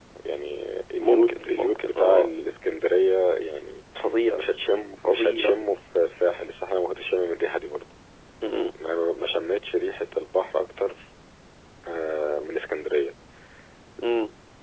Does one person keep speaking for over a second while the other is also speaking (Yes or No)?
Yes